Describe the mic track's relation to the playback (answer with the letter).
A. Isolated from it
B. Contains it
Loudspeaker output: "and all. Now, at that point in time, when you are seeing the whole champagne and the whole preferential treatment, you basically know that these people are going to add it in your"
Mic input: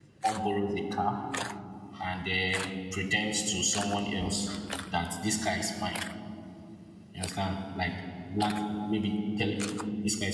A